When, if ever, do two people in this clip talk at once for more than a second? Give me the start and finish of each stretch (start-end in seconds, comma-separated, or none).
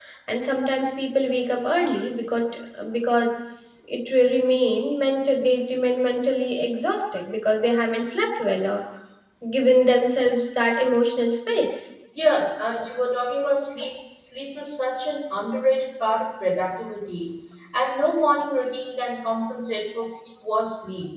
none